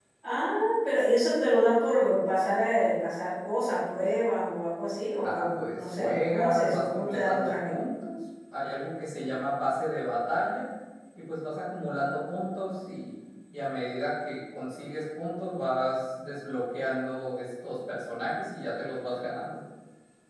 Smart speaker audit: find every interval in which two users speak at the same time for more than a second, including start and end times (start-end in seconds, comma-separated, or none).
5.2-7.8